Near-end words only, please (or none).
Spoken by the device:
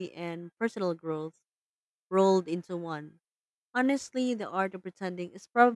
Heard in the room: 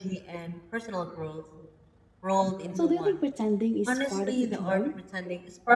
So do you think pretending is part of the charm?